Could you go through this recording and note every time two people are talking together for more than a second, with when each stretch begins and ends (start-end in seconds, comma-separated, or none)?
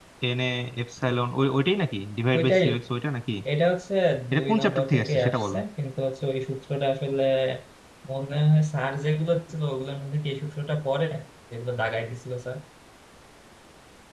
4.4-5.6